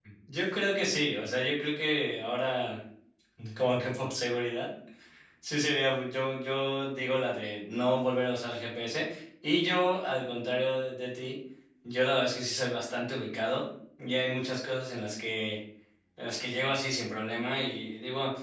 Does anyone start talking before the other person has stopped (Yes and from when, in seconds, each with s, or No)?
No